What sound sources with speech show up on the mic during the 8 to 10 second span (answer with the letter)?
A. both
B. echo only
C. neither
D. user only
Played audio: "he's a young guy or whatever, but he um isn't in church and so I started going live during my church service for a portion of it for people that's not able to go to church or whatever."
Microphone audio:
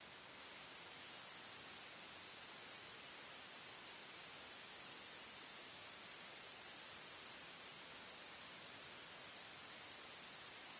C